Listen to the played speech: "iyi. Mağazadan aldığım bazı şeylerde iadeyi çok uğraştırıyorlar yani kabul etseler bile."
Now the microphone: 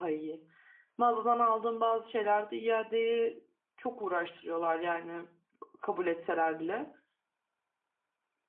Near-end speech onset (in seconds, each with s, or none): none